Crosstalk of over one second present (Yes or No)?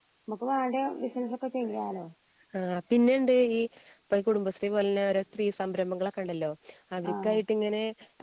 No